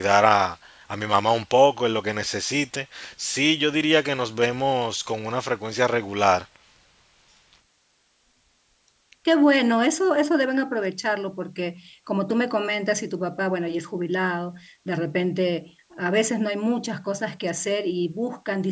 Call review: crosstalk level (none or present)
none